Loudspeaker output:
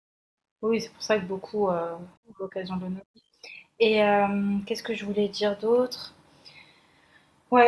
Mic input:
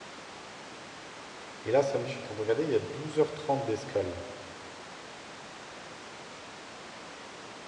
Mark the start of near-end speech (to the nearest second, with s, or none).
2 s